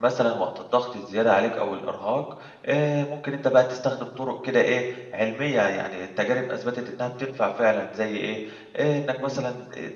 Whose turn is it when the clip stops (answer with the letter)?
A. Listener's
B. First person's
B